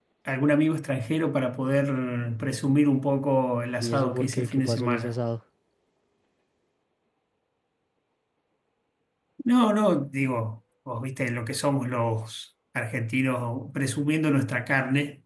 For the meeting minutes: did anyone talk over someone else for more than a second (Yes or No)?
Yes